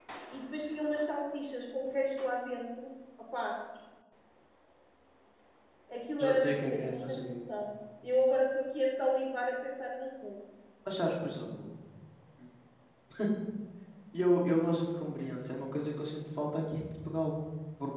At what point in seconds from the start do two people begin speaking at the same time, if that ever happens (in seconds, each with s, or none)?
6.2 s